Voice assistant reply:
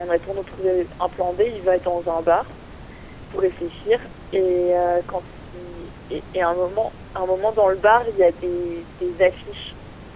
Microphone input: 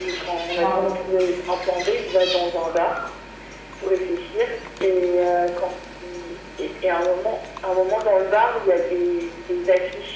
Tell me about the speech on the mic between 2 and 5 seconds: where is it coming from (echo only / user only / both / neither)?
echo only